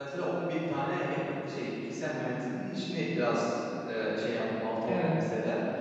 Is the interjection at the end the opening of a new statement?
No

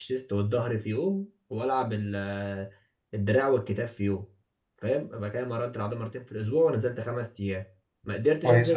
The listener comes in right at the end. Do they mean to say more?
No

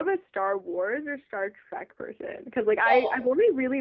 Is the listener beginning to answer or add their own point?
No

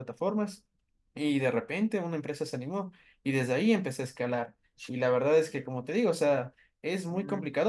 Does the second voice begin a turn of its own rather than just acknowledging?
No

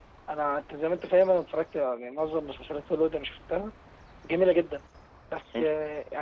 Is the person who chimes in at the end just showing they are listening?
Yes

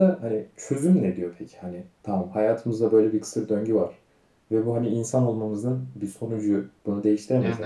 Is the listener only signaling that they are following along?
Yes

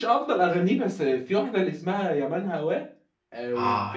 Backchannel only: No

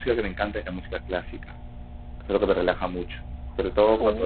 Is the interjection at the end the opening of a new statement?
No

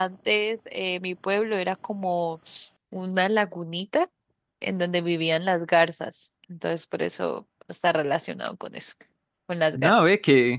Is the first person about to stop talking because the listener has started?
Yes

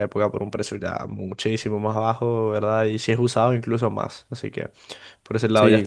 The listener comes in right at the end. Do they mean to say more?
No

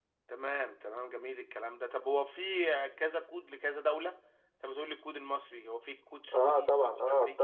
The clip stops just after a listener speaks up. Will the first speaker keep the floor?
No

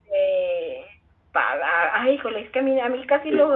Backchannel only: Yes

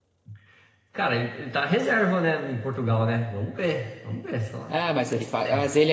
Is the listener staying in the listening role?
No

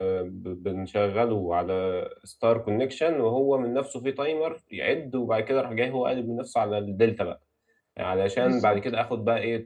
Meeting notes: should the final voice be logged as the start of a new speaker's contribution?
No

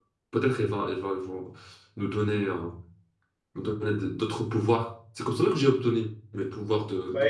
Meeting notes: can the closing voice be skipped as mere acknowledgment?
No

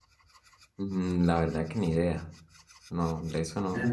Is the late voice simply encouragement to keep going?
No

